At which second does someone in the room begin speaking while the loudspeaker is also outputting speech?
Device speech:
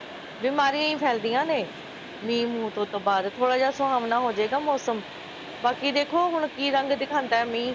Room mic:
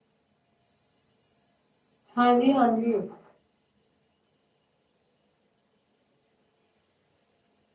2.2 s

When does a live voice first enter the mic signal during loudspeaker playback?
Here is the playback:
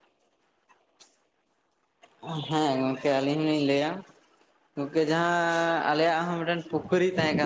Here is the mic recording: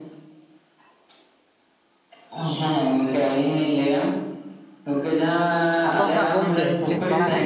5.9 s

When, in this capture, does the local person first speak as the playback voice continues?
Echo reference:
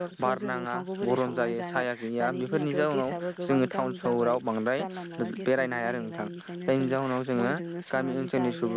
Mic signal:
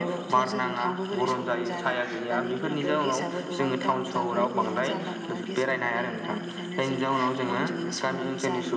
4.1 s

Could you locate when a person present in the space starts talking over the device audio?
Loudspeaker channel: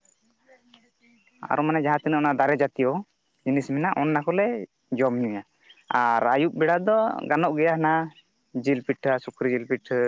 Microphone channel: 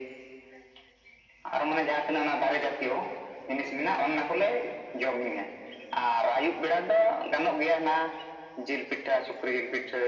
none

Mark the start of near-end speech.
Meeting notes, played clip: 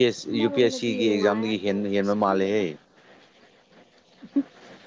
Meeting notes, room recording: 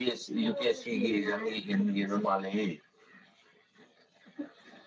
none

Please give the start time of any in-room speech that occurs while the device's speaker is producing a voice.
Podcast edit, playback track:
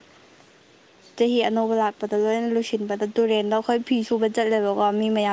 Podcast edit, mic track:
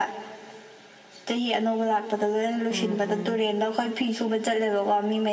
2.7 s

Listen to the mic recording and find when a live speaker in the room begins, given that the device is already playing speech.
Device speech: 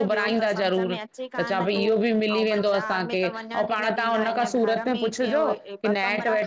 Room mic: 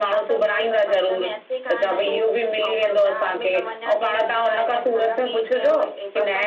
none

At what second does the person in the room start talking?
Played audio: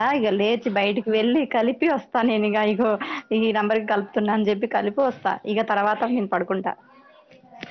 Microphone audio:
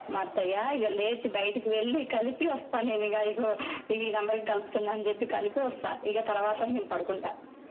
none

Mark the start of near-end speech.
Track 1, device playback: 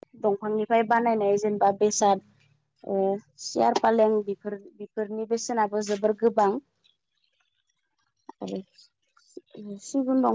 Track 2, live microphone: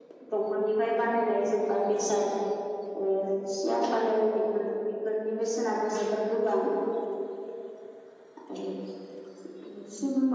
none

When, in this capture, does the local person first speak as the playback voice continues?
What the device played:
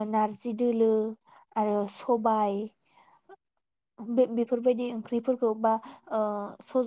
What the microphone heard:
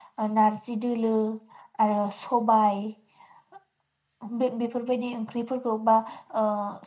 none

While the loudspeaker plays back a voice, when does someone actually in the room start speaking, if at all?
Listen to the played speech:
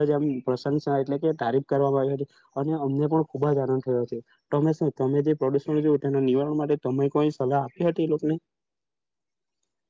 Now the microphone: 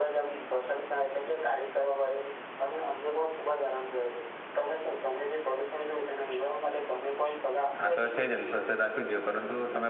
7.8 s

